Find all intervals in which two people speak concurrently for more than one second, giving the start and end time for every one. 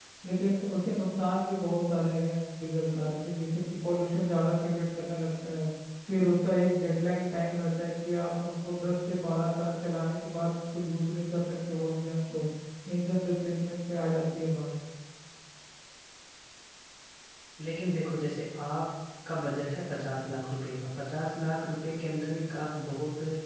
none

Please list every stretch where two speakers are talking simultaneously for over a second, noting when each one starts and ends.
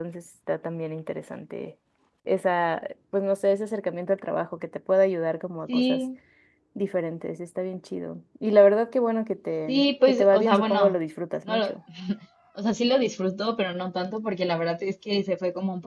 9.7-10.9

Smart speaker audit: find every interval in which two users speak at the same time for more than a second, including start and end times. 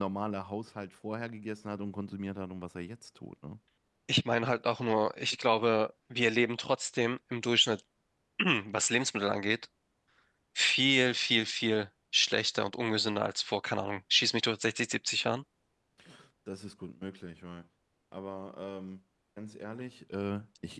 none

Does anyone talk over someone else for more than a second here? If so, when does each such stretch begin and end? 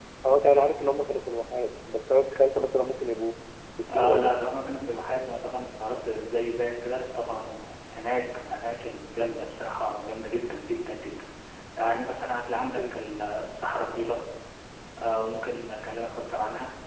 none

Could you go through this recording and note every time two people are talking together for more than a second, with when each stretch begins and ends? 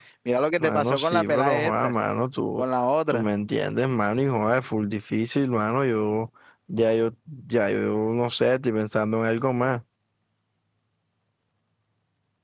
0.6-1.9

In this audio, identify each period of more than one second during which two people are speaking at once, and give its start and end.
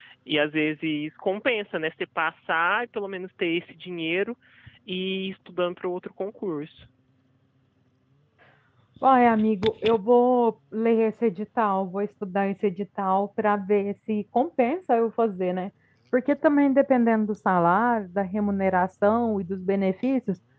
none

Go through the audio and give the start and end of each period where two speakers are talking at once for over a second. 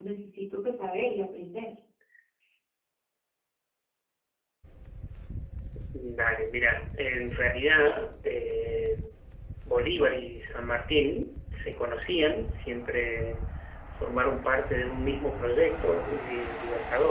none

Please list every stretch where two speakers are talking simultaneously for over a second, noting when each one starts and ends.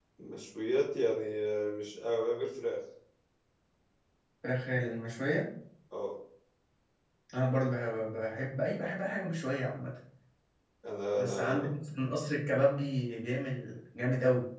none

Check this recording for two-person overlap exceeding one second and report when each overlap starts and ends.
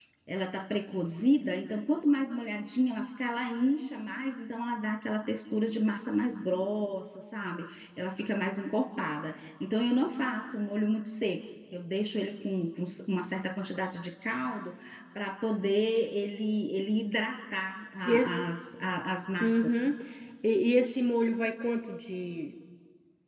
none

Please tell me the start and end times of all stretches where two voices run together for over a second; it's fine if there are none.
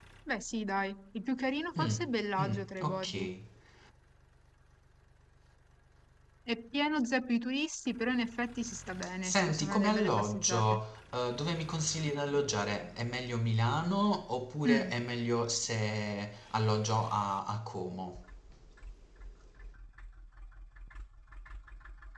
1.8-3.3, 9.2-10.8

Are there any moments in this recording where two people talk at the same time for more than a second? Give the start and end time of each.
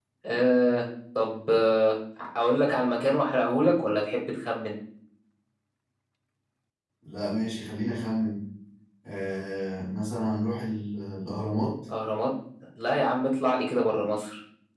none

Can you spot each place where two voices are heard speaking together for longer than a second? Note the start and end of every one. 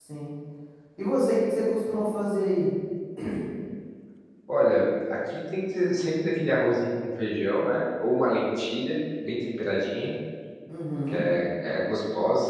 none

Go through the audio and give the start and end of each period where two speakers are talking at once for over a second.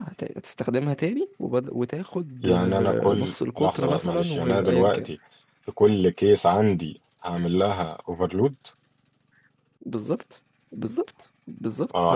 2.4-5.1

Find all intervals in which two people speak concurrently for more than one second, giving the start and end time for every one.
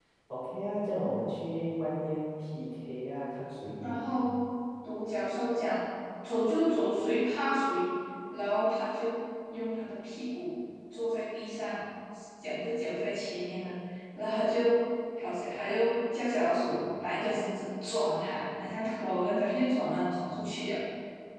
none

